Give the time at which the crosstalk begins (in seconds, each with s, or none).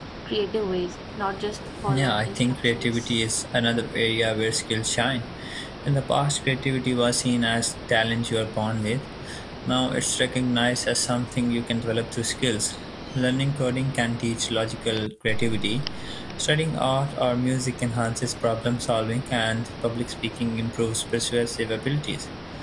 1.8 s